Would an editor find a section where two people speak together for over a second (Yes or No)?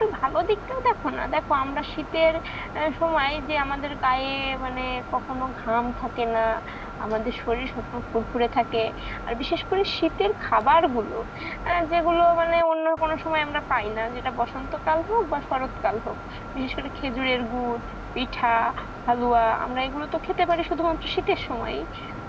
No